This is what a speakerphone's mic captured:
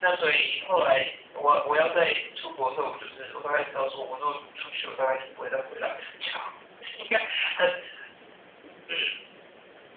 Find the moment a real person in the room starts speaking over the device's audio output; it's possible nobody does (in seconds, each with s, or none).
none